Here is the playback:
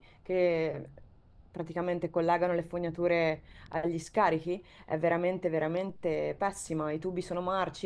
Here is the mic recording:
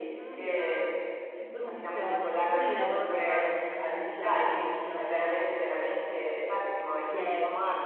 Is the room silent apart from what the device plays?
No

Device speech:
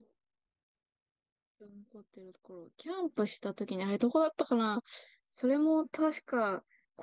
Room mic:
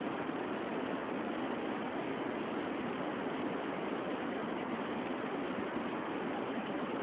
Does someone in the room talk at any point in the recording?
No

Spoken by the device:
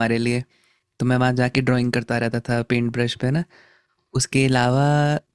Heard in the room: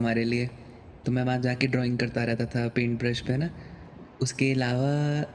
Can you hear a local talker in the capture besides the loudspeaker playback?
No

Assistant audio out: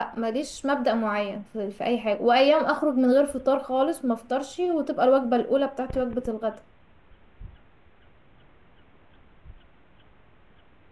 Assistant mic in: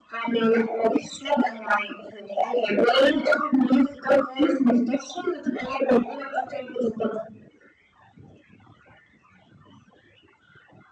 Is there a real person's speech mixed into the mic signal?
No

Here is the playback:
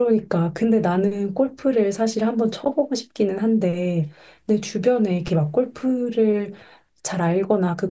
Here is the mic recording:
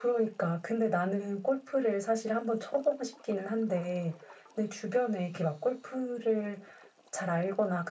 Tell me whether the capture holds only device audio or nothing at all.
Yes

